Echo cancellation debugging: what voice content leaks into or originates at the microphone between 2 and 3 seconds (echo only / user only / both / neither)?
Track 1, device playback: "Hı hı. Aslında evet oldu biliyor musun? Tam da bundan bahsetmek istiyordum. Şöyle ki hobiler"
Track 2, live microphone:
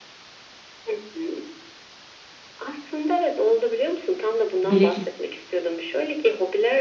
echo only